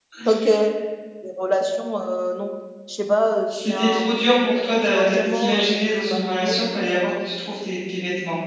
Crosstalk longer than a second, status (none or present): present